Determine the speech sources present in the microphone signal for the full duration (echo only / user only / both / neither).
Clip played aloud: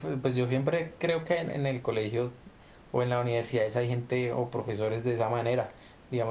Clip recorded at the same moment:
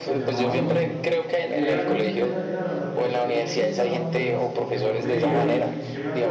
both